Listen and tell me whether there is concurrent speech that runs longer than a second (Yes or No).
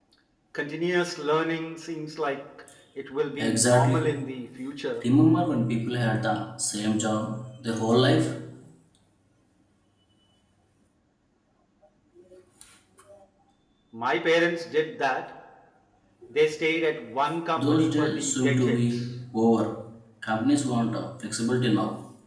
Yes